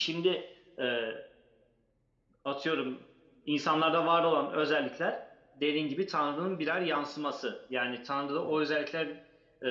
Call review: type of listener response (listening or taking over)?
listening